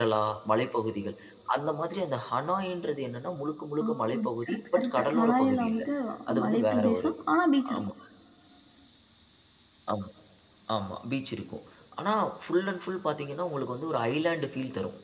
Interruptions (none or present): present